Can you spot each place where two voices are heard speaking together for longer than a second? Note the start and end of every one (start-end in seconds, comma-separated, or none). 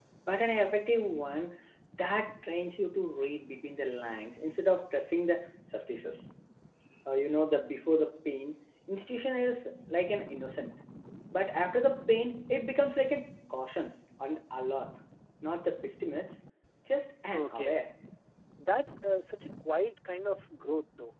none